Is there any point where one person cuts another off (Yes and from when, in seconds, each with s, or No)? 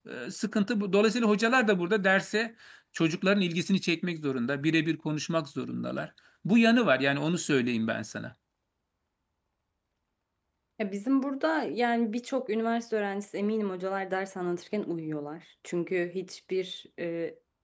No